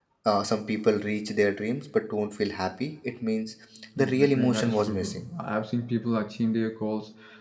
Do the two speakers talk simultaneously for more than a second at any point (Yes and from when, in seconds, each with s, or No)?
Yes, from 4.0 s